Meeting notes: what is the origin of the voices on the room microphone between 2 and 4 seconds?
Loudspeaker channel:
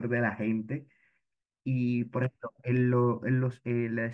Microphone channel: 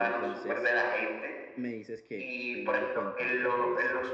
both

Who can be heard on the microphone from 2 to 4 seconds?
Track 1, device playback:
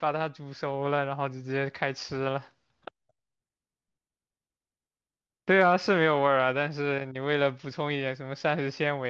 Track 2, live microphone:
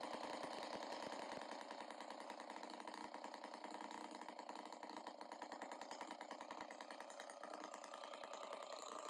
neither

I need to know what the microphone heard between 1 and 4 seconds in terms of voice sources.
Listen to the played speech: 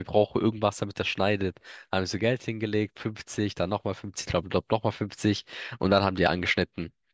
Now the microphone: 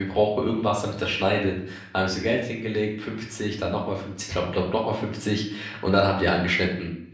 echo only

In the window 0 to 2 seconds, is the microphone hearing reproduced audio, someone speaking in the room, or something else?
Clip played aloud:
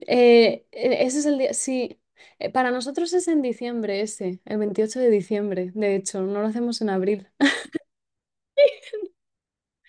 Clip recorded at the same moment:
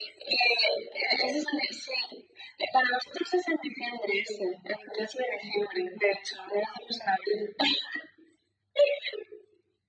echo only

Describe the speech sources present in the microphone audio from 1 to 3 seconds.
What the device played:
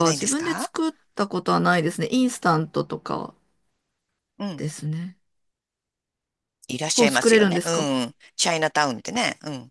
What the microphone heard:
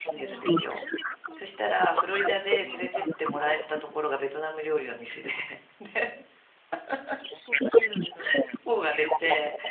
both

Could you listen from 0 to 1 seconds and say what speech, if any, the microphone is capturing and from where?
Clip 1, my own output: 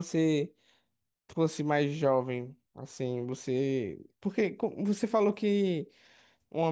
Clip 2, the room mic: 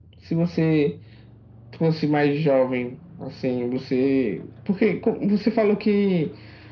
echo only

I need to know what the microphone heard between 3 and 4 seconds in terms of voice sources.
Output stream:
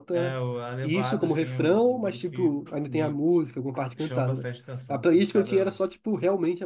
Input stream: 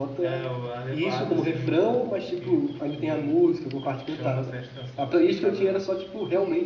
echo only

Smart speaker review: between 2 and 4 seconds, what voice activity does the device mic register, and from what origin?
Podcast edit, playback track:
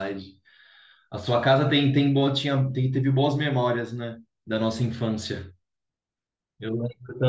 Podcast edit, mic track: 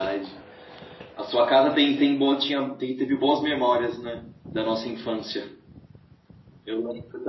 echo only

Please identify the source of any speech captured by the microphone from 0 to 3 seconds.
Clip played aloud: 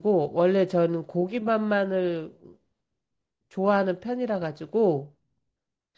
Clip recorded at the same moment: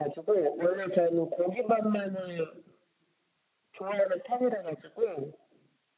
echo only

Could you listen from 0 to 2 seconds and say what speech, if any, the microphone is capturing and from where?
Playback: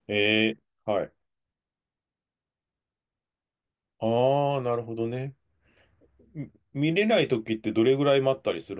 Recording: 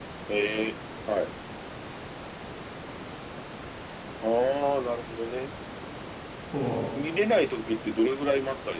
echo only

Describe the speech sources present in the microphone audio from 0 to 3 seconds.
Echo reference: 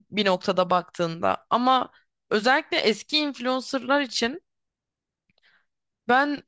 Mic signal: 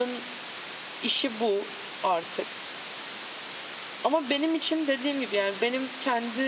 user only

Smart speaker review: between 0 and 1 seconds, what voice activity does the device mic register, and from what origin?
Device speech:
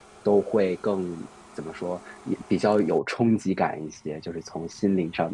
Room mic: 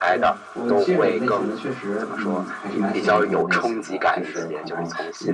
both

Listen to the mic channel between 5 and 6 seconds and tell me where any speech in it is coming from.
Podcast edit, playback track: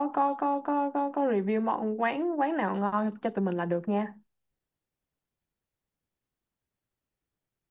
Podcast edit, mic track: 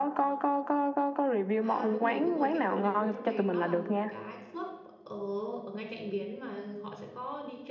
user only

